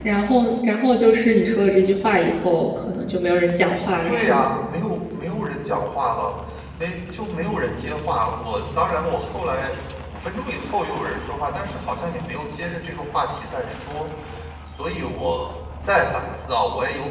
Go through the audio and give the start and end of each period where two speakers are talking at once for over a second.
none

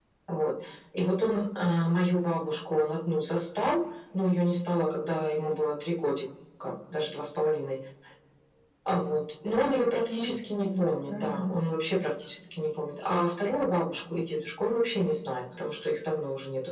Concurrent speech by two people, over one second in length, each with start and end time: 9.6-11.7

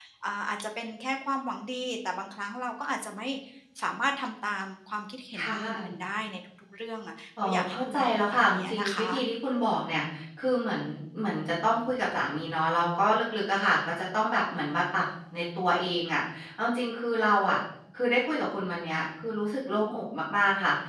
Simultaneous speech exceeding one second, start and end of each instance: 7.4-9.2

